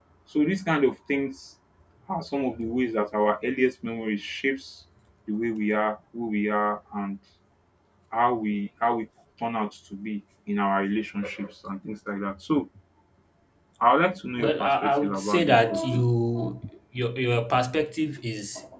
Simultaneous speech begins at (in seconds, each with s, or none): 14.4 s